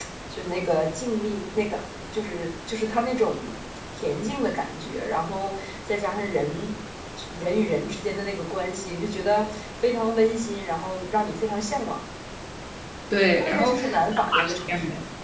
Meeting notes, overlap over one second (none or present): present